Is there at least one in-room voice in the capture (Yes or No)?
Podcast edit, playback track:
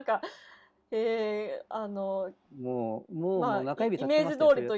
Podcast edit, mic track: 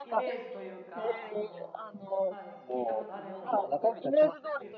Yes